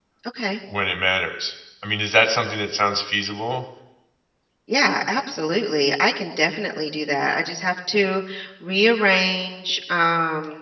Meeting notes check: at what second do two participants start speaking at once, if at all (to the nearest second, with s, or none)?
none